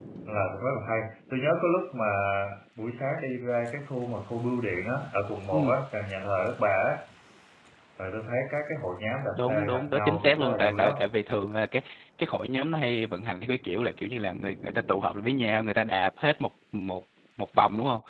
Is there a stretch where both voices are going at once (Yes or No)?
Yes